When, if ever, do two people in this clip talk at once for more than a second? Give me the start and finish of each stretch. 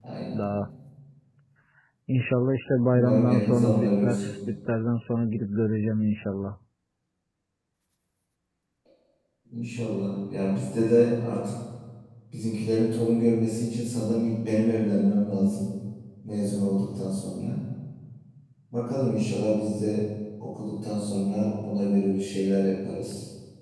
2.9-4.3

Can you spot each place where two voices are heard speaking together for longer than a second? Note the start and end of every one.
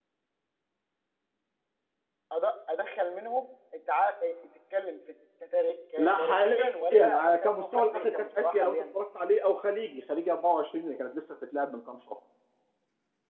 6.0-8.8

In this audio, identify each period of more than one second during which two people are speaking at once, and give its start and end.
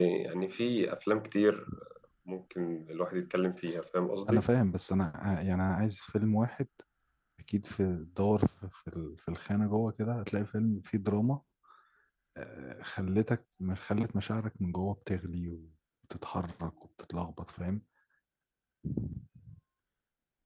none

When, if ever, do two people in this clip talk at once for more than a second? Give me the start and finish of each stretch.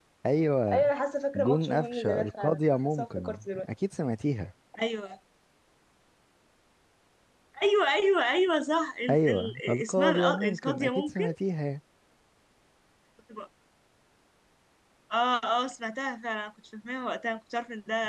1.4-3.7, 9.1-11.2

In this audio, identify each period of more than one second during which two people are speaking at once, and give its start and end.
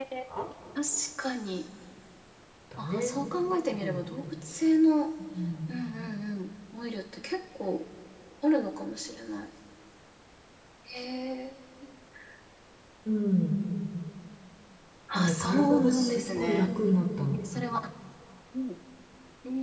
15.2-16.7

